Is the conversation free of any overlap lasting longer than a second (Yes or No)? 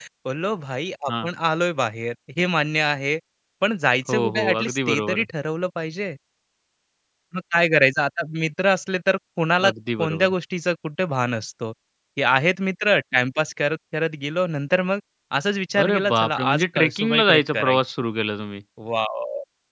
No